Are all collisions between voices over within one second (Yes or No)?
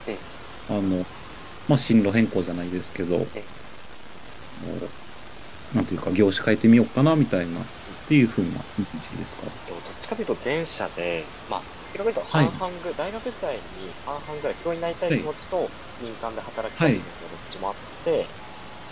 Yes